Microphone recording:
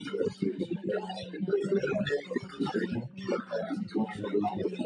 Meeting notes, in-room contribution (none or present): present